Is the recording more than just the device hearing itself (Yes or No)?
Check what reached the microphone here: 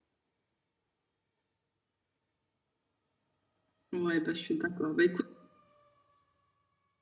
Yes